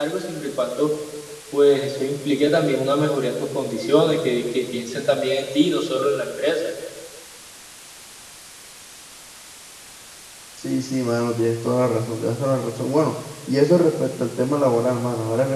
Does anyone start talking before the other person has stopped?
No

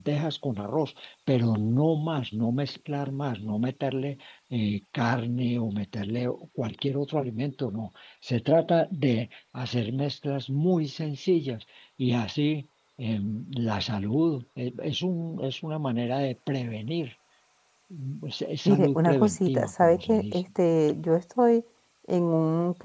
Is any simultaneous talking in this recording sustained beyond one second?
Yes, from 18.6 s

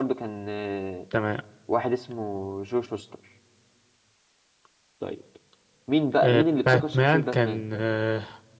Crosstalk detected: Yes, from 6.2 s

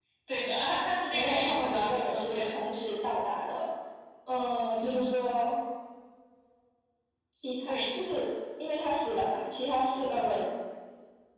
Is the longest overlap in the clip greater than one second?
Yes, from 1.1 s

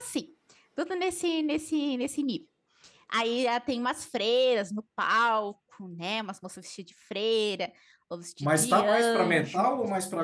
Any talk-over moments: Yes, from 8.4 s

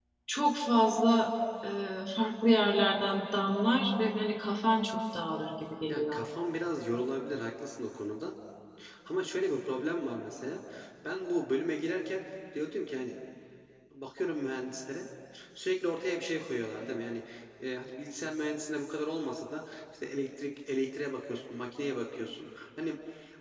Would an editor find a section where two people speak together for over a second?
No

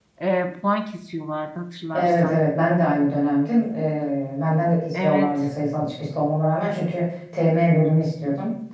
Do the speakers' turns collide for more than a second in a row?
No

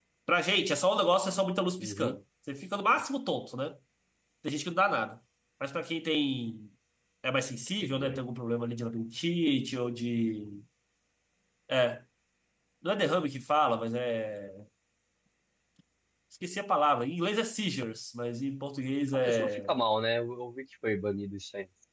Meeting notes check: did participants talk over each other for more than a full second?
No

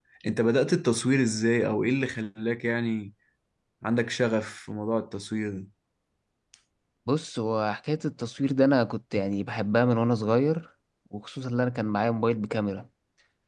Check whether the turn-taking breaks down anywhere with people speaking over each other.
No

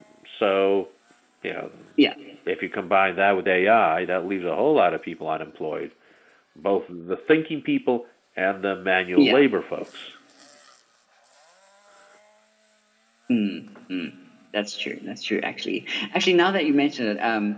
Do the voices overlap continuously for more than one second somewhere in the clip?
No

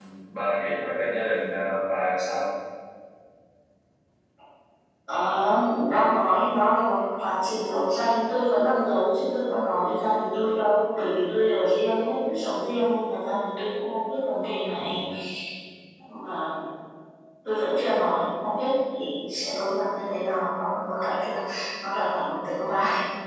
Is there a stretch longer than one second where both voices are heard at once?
No

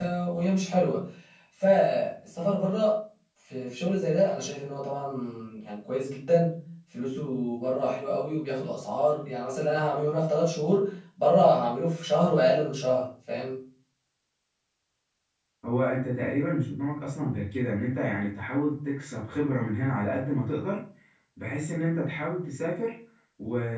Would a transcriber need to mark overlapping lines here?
No

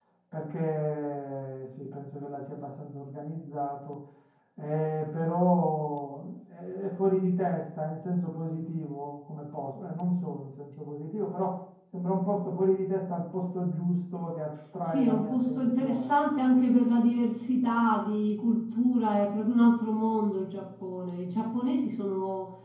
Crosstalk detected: Yes, from 14.8 s

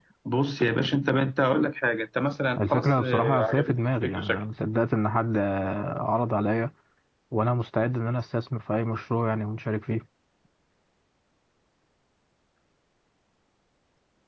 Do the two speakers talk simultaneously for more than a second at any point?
Yes, from 2.6 s

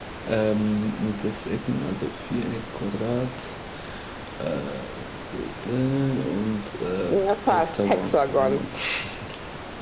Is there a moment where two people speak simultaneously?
Yes, from 7.1 s

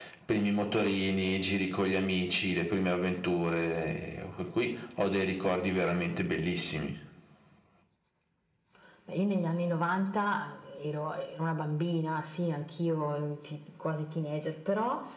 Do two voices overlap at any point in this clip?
No

